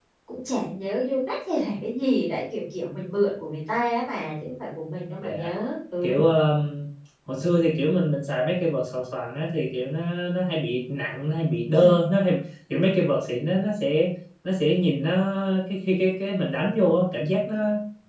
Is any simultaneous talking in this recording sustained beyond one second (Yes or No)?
No